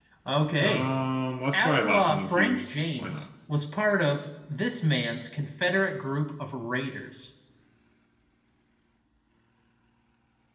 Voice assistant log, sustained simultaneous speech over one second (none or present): present